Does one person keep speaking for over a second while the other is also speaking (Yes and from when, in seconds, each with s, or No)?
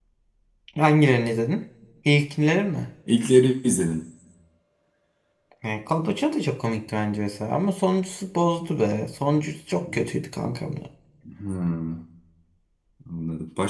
No